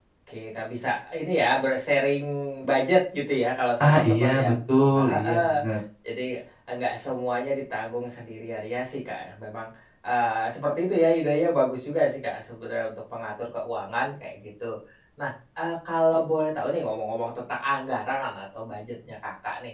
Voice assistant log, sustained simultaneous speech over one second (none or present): present